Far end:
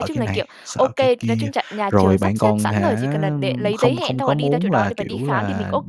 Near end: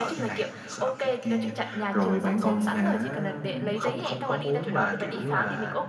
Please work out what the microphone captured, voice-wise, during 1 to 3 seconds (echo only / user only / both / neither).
echo only